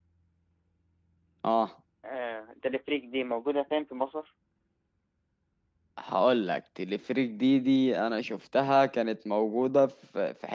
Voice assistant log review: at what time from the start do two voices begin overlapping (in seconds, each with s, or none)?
none